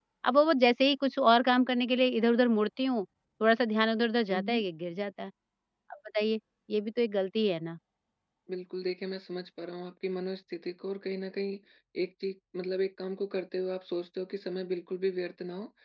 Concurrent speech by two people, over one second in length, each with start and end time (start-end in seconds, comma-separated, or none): none